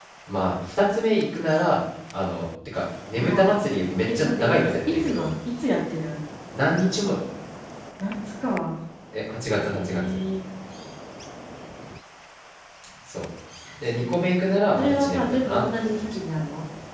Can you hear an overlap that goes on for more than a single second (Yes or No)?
Yes